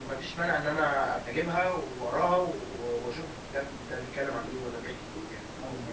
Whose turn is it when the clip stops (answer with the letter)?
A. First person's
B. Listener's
B